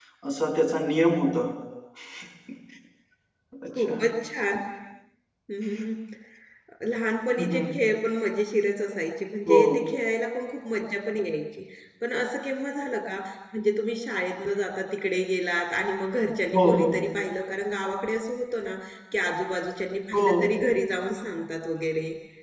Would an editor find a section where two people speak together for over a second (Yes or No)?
No